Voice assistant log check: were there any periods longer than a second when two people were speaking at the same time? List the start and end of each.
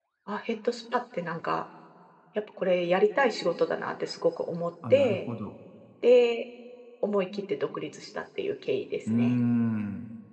none

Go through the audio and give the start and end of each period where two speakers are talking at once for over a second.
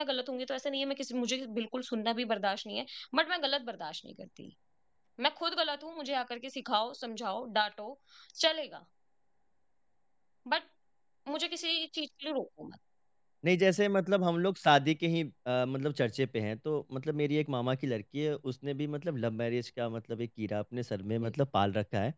none

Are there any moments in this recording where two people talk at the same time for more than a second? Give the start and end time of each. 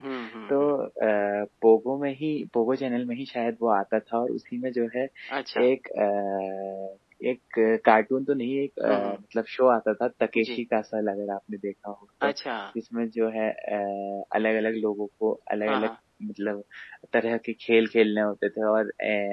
none

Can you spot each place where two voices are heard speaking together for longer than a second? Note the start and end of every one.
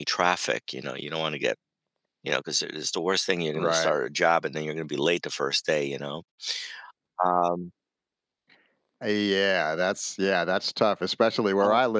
none

